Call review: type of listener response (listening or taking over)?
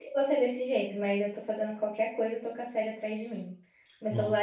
listening